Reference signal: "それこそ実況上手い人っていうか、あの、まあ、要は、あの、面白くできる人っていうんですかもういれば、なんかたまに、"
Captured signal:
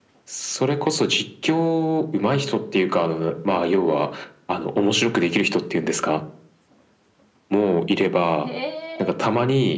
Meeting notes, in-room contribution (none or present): present